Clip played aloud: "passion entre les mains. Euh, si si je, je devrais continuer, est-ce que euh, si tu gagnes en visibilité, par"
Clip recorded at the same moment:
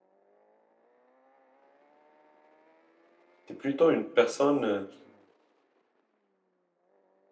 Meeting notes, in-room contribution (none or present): present